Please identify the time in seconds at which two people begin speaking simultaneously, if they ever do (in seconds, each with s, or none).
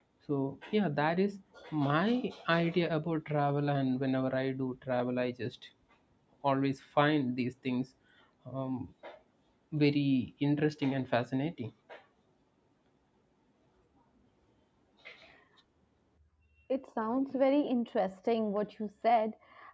none